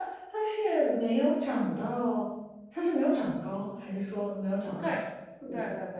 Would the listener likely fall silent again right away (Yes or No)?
No